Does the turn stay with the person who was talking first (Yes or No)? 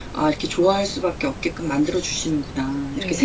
No